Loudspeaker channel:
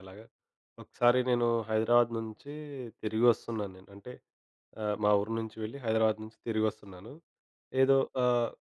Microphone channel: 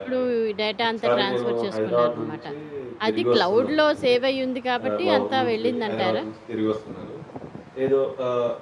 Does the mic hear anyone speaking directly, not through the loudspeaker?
Yes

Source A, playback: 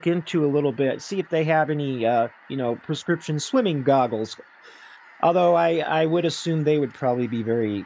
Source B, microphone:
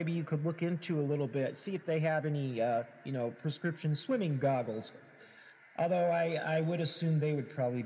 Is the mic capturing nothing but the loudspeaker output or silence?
Yes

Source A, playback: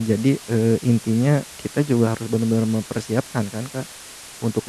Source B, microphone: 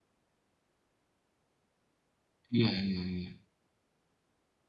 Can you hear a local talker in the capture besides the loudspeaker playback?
Yes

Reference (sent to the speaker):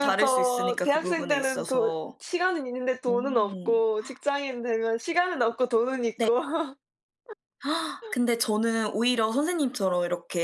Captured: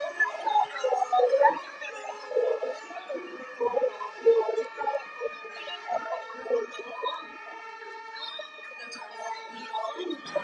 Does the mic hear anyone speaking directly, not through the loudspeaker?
No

